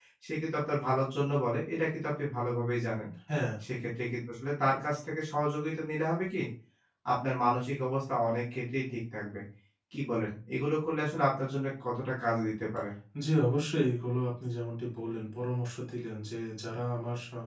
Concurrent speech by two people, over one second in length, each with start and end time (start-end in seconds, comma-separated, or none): none